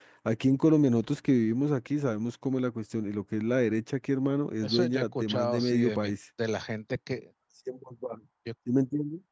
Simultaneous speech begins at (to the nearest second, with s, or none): 5 s